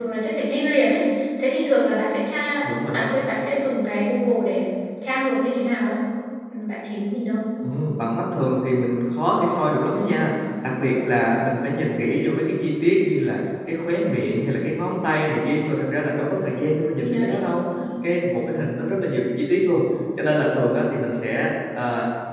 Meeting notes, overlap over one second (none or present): none